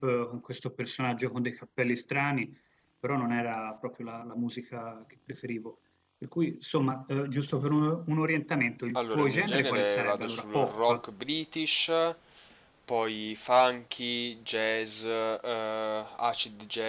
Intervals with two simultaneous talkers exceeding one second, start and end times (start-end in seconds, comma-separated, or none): 8.9-11.0